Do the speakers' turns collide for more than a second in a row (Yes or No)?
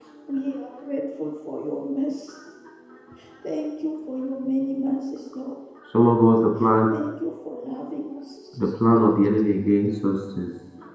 No